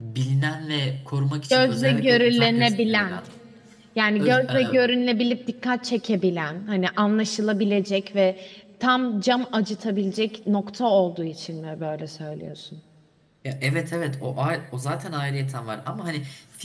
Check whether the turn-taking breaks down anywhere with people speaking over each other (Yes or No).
Yes